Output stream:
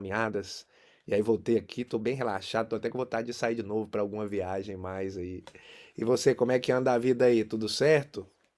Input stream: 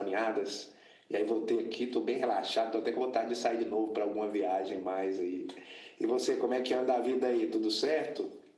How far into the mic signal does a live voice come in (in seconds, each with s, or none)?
none